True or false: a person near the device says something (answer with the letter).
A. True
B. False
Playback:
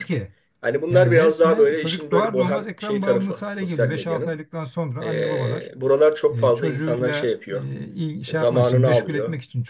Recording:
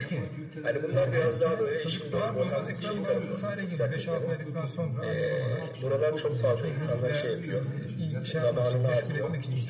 A